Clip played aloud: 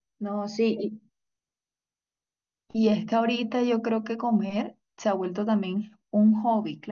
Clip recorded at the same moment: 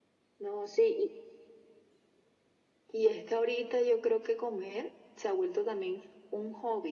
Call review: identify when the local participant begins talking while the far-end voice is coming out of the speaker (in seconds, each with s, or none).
none